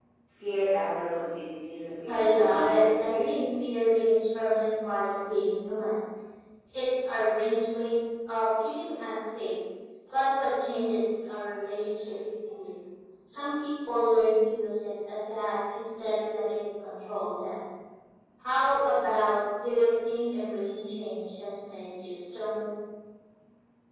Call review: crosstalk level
present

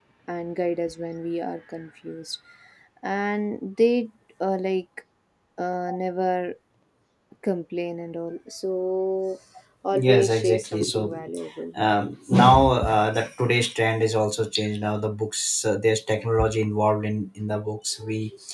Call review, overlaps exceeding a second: present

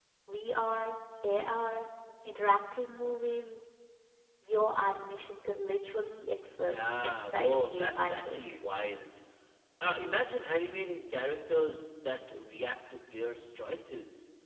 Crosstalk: present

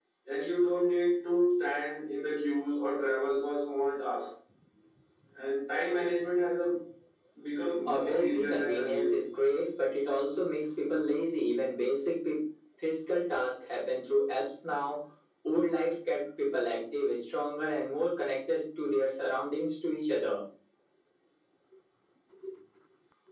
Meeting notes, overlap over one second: present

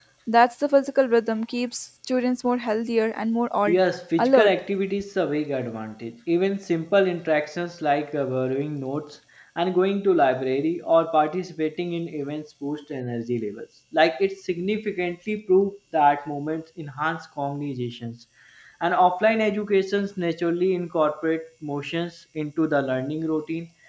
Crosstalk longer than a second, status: none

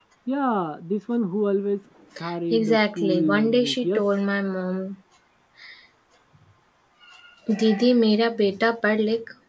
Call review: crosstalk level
present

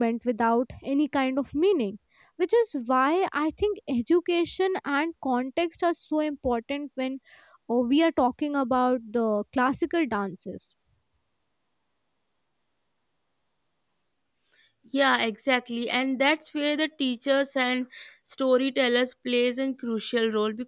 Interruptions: none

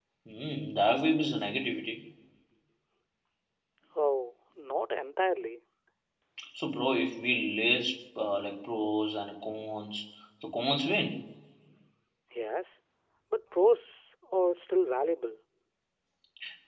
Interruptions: none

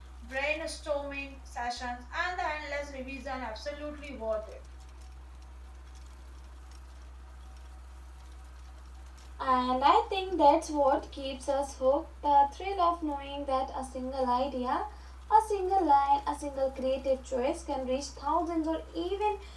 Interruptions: none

